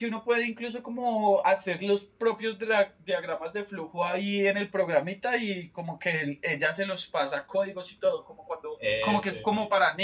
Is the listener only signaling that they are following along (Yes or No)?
Yes